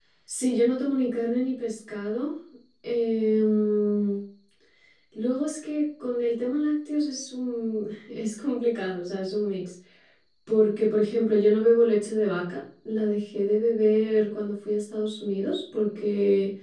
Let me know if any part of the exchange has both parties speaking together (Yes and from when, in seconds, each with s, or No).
No